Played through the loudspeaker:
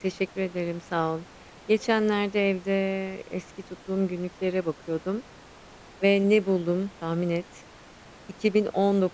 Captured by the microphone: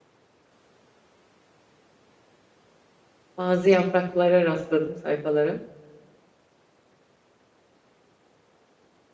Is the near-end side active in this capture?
Yes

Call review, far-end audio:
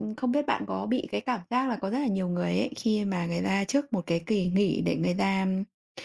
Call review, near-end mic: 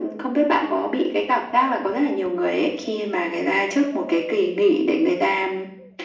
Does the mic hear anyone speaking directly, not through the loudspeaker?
No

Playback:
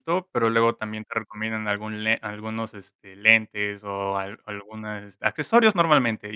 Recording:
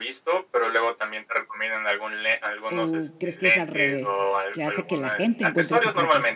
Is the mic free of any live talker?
No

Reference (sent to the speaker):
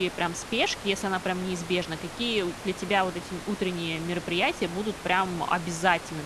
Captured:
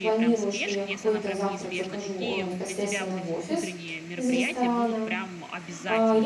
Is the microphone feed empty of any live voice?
No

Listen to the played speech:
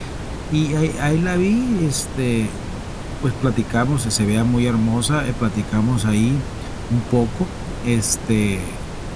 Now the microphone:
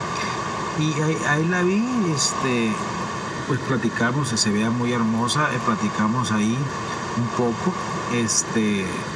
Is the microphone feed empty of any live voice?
Yes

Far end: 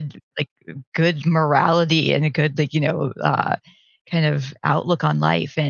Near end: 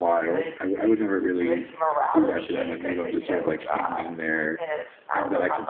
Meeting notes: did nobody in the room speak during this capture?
No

